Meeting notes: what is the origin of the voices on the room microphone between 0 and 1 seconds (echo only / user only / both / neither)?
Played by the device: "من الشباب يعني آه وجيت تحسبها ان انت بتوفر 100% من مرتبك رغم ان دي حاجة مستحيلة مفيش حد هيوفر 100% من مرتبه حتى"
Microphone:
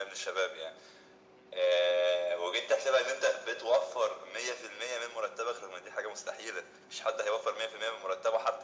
echo only